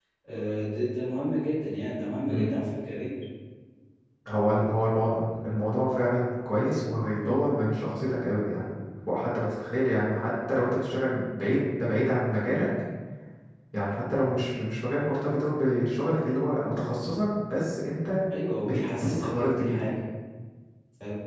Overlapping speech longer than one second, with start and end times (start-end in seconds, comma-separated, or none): 18.6-19.9